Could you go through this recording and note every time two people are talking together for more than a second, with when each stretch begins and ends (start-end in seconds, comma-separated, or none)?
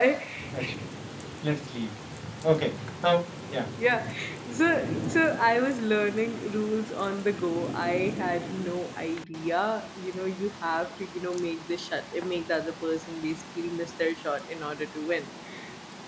none